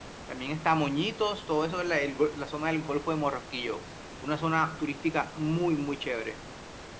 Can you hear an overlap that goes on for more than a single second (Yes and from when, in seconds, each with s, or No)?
No